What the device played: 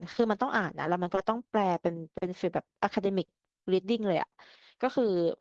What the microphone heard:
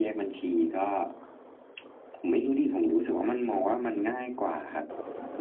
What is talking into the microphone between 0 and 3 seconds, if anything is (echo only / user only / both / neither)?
user only